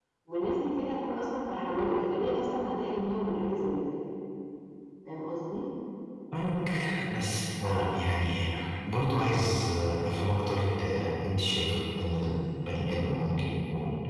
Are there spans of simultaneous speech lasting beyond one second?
No

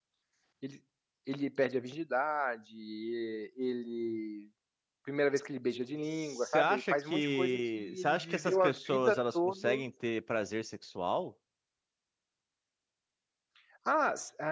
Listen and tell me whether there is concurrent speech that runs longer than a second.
Yes, from 6.2 s

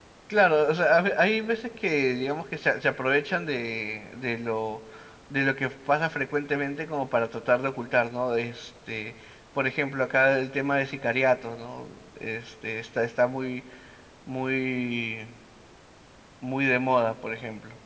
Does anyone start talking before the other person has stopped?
No

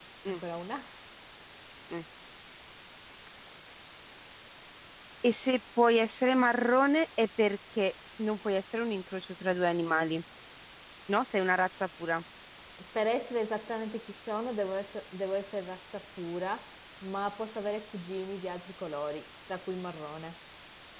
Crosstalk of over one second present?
No

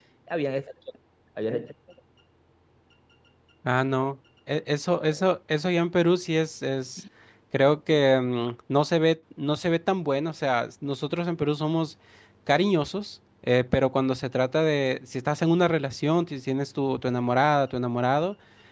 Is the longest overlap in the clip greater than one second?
No

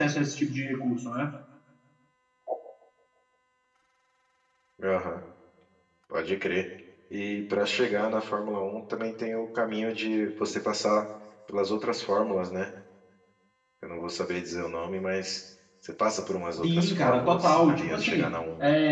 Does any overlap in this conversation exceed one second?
Yes, from 16.6 s

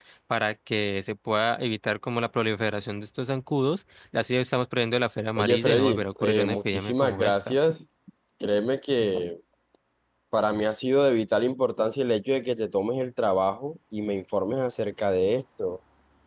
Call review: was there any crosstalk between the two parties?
Yes, from 5.4 s

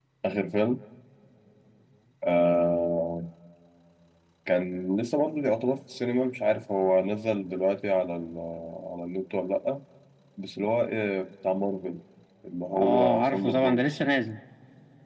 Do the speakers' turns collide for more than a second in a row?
Yes, from 12.7 s

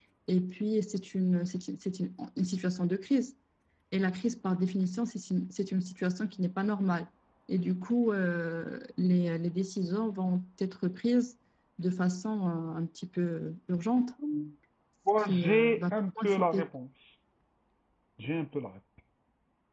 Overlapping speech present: Yes, from 15.2 s

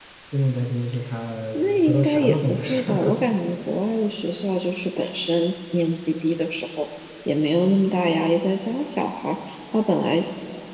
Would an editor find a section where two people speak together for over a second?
Yes, from 1.8 s

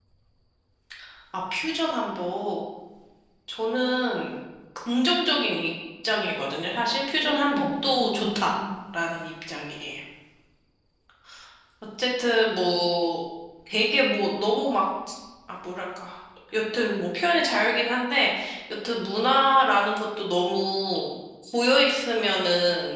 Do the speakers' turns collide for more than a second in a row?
Yes, from 7.2 s

